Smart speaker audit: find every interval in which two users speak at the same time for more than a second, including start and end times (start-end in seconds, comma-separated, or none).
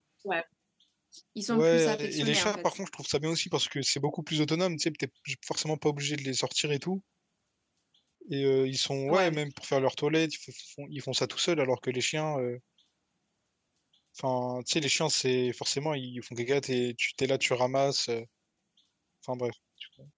1.5-2.8